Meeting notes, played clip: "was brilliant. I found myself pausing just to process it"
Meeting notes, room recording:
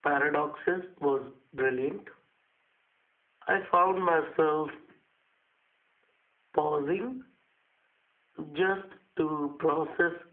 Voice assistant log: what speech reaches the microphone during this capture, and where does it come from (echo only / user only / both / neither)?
echo only